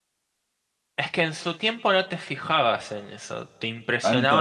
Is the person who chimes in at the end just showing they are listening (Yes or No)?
No